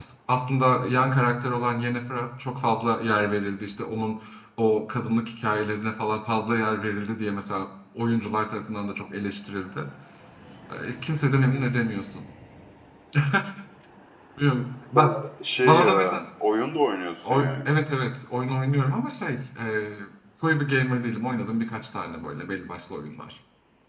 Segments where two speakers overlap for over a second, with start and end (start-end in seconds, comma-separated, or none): none